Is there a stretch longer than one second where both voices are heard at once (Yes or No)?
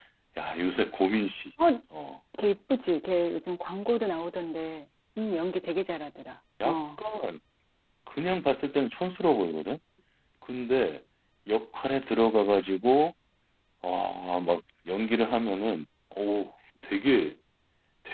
No